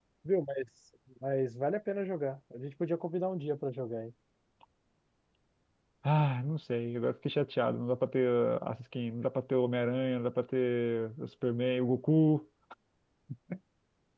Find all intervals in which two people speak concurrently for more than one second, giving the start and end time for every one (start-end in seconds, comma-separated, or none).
none